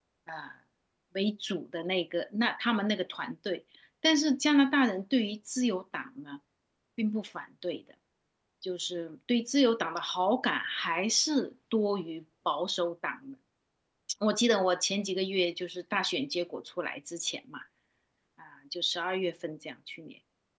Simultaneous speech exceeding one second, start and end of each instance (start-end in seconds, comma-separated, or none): none